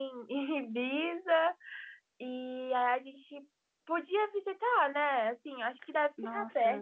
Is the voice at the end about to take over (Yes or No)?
Yes